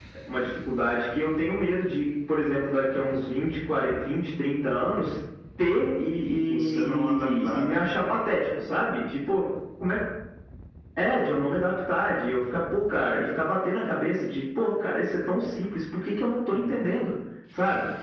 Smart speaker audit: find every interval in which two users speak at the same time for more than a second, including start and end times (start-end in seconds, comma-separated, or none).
6.5-7.8